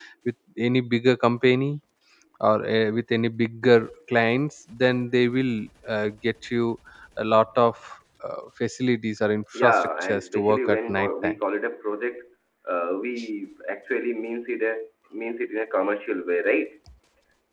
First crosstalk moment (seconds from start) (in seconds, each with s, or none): 9.6 s